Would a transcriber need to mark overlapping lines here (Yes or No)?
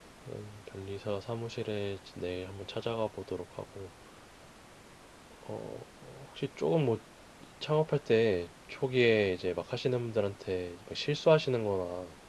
No